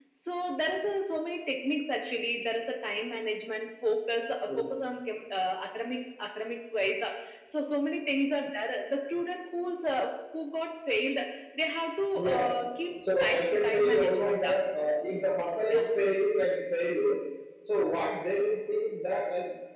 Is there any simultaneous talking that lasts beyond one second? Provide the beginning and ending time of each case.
13.2-14.6

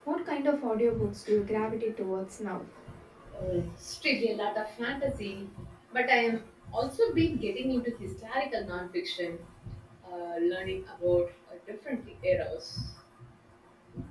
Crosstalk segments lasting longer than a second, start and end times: none

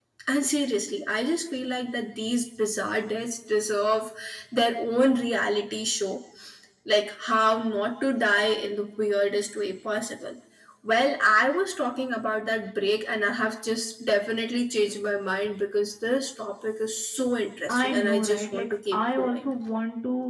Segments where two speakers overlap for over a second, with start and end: 17.7-19.5

